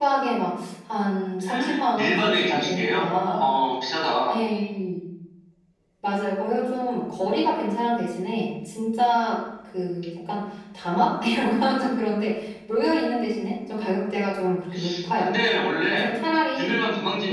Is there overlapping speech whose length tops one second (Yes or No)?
Yes